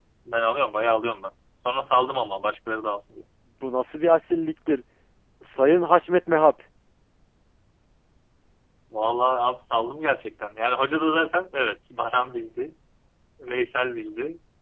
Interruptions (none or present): none